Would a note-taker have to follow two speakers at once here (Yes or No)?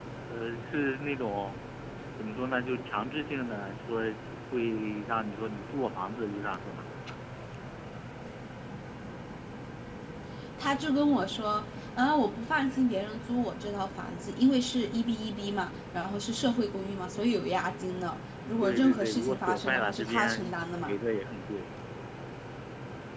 Yes